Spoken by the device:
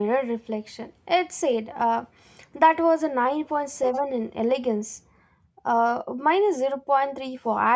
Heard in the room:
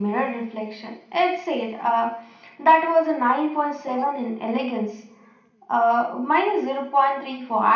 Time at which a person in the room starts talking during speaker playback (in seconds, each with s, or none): none